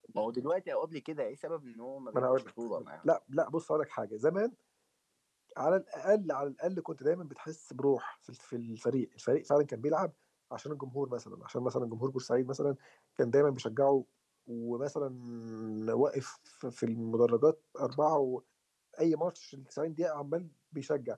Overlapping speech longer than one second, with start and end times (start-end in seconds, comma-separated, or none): none